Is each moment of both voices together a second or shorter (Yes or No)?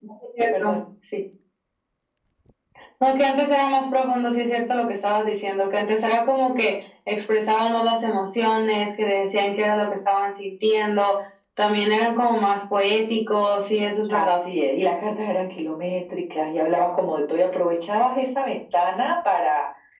Yes